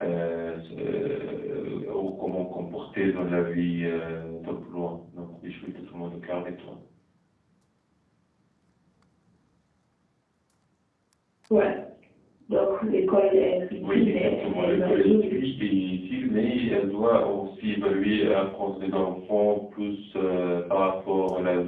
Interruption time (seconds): 14 s

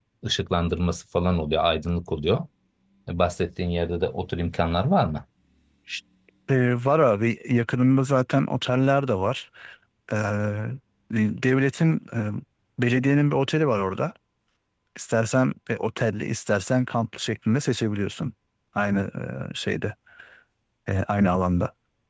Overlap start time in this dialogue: none

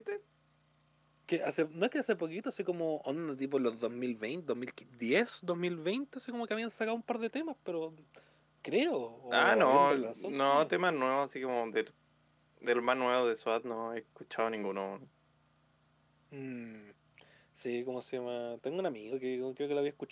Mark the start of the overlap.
9 s

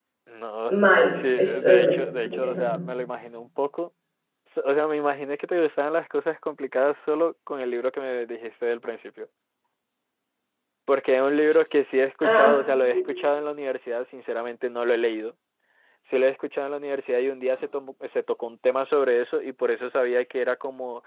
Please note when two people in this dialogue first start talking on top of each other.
1 s

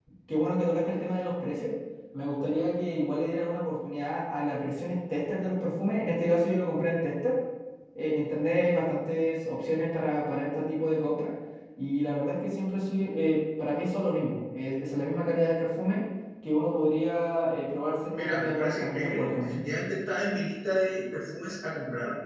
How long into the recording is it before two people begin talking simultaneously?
18 s

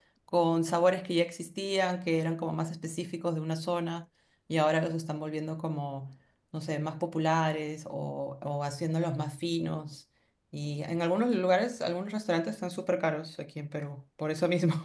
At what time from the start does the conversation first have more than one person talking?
none

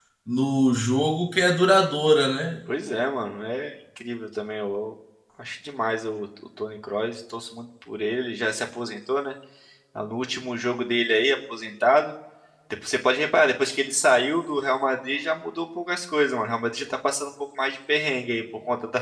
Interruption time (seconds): none

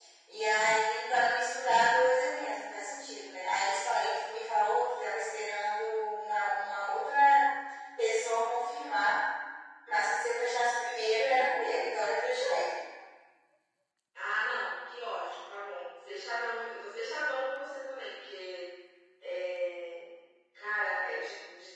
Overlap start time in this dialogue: none

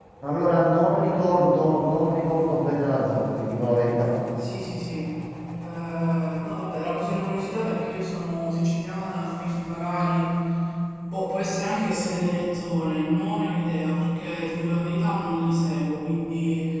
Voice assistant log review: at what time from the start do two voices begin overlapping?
none

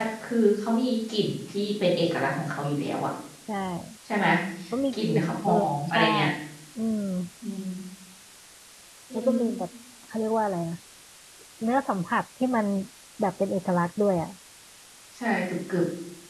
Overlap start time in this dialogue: 5 s

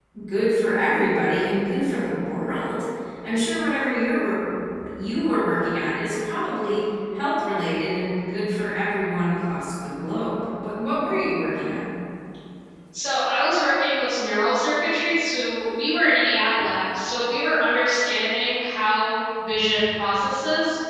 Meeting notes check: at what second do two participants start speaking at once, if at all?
none

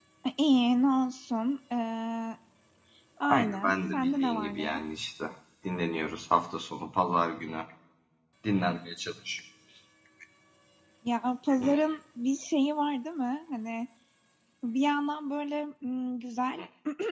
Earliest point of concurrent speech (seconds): 3 s

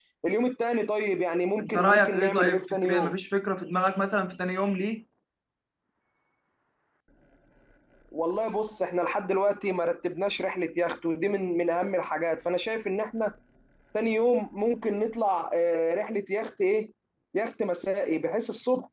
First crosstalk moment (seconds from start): 2 s

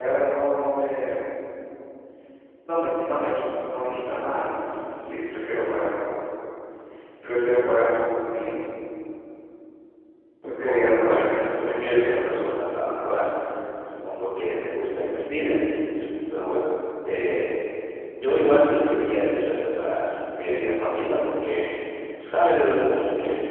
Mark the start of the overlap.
11 s

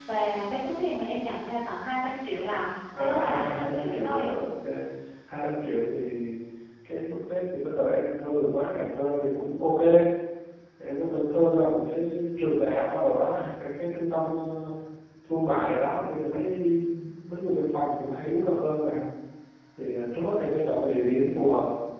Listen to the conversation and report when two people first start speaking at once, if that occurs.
3 s

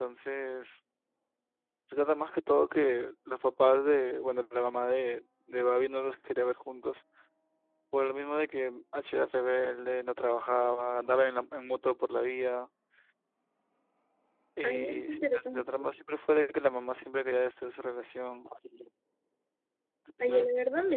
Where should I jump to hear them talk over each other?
15 s

